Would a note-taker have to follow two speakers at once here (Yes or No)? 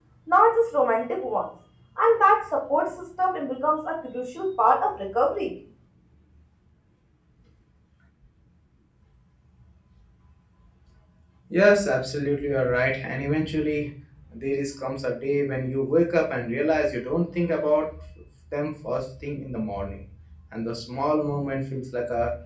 No